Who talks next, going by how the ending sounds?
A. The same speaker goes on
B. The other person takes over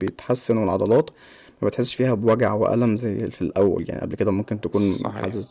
A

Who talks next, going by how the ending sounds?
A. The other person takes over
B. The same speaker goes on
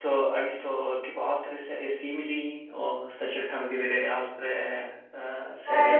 A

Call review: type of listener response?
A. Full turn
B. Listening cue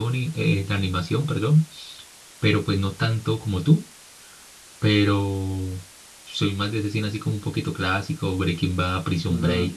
A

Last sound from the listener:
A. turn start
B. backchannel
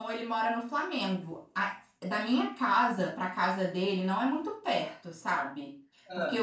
B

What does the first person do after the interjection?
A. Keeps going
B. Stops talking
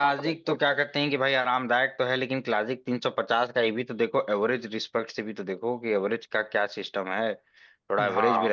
A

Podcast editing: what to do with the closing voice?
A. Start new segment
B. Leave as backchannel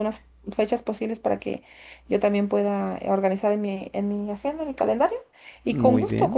B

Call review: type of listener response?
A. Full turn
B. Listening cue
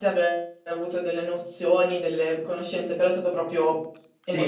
A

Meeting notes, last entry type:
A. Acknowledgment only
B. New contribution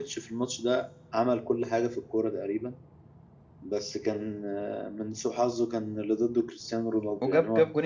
B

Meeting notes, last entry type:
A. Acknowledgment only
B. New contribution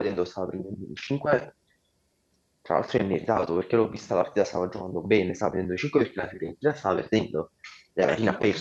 A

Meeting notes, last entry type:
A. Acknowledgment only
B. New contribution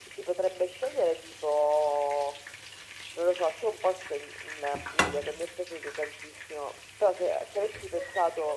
A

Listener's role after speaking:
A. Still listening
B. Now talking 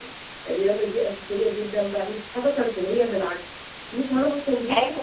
A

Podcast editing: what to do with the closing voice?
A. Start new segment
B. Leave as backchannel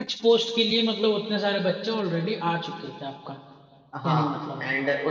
A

